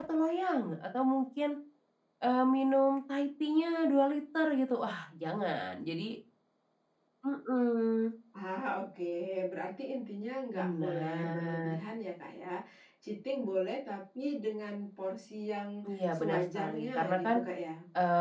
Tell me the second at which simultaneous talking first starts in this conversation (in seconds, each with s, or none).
10.5 s